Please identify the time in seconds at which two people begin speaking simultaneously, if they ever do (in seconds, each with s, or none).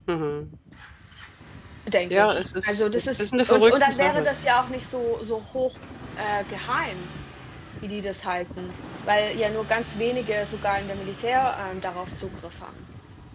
2.1 s